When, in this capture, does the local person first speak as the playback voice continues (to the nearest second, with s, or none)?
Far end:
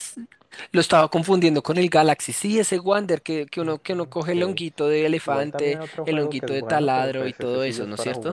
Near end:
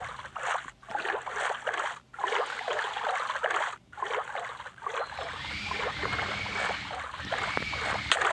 none